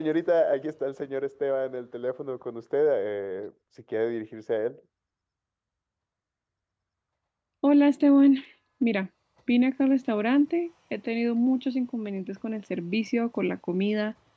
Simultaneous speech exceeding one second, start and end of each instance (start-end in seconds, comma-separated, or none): none